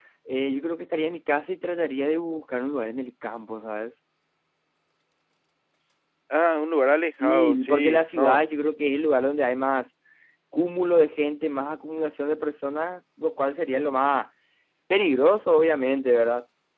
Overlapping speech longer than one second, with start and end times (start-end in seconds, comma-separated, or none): 7.2-8.4